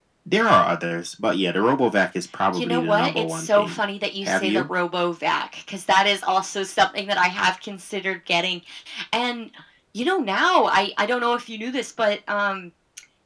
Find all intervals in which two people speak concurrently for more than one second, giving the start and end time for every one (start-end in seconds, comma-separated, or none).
2.5-3.8